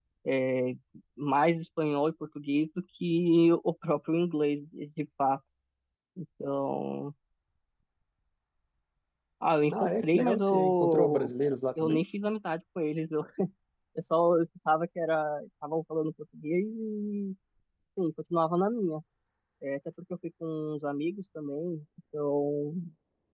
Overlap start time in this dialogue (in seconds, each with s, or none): 9.7 s